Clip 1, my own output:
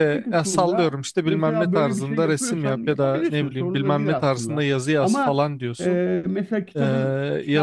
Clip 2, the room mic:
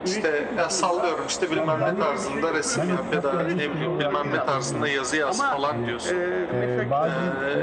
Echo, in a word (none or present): present